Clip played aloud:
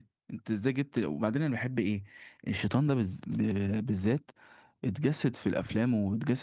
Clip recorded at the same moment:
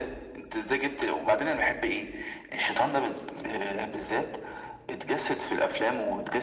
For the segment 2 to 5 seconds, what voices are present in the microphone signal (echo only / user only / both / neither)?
echo only